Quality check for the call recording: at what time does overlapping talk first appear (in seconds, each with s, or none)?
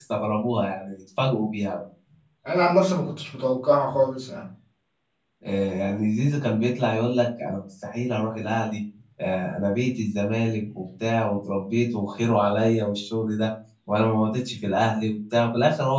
none